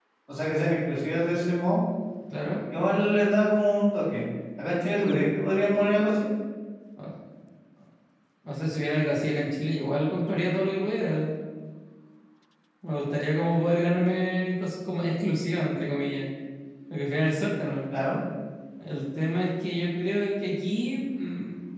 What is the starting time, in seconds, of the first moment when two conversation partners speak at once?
none

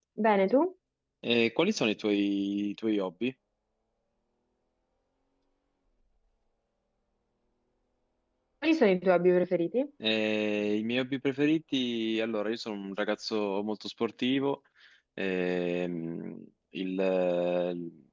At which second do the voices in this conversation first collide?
none

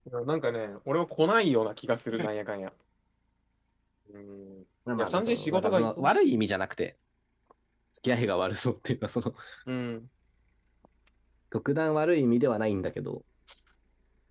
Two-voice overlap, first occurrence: 5.0 s

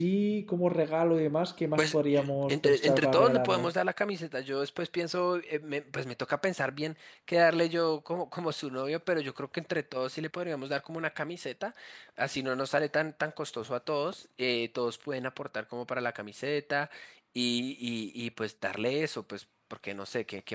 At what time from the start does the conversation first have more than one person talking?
1.8 s

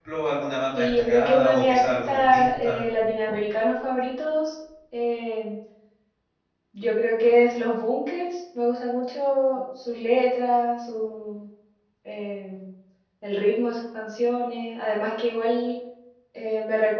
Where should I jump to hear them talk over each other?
0.8 s

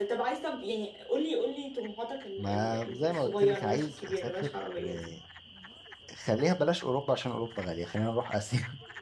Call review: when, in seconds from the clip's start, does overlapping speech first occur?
2.4 s

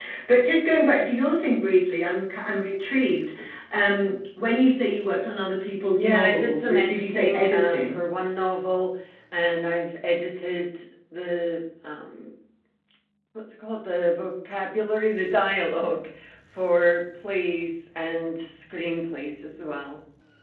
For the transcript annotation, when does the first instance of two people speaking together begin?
6.0 s

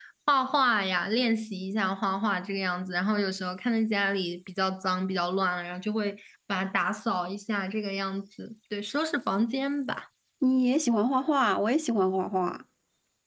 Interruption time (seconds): none

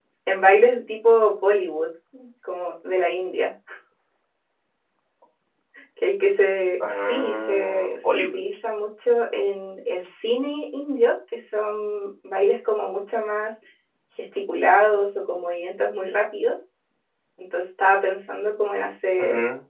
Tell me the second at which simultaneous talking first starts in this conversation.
7.1 s

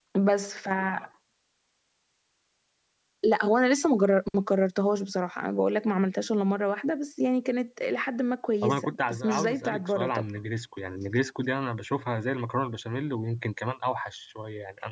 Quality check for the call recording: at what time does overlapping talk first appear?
8.6 s

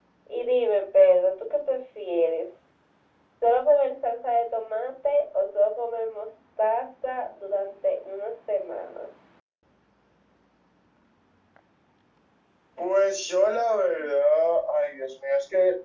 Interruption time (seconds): none

